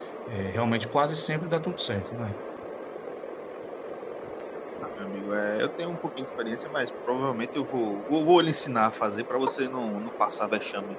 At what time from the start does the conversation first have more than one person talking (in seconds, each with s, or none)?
none